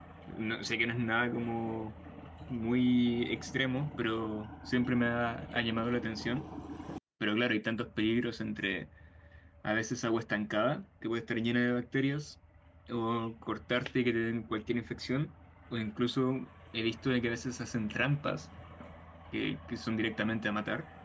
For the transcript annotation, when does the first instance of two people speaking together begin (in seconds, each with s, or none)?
none